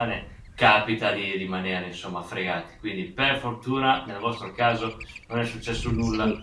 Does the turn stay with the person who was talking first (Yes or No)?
No